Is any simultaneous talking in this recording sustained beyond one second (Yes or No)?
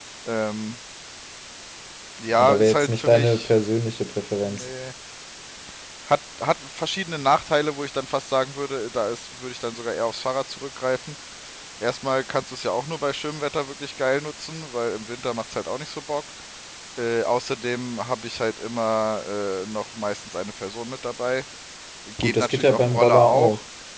Yes